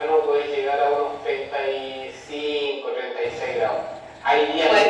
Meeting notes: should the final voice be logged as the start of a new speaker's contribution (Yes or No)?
No